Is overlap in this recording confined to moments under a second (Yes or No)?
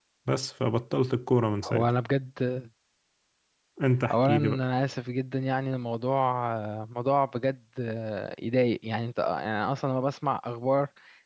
Yes